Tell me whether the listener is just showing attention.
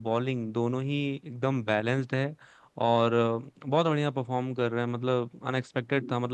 Yes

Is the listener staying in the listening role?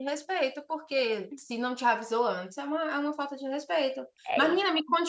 Yes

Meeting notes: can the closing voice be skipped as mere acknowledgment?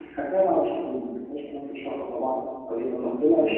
Yes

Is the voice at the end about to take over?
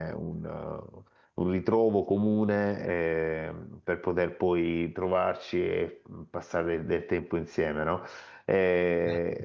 No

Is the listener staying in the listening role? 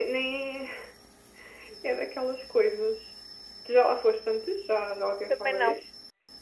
No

